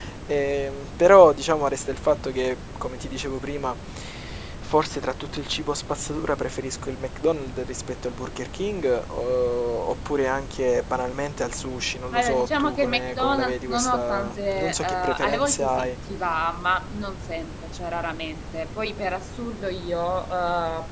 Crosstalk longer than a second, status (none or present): present